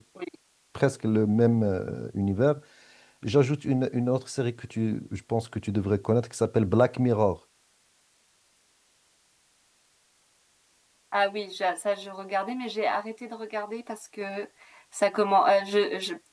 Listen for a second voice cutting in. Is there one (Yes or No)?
No